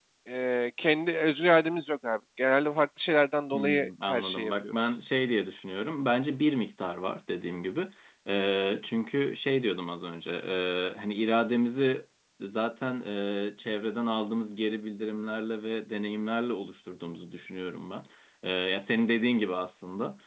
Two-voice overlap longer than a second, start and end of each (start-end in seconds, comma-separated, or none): 3.5-4.9